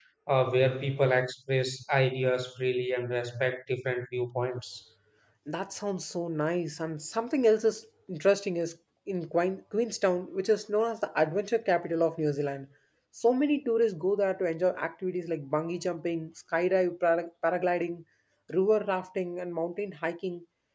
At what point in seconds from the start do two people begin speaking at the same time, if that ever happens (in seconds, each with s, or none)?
none